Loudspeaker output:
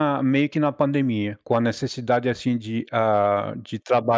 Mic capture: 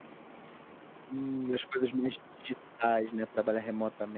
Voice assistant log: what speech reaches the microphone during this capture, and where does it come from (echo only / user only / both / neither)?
user only